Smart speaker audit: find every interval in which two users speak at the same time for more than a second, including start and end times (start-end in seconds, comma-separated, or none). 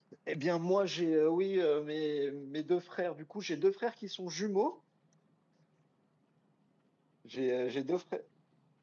none